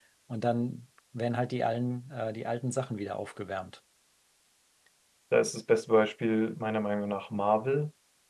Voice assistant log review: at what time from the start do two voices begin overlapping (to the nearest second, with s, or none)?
none